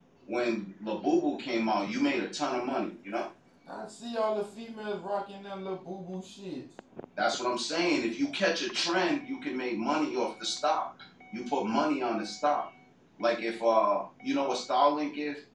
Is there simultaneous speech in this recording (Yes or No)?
No